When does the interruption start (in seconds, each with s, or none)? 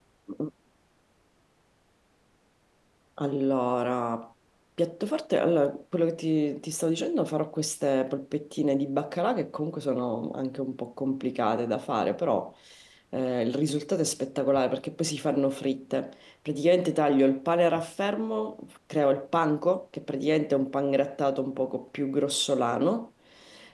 none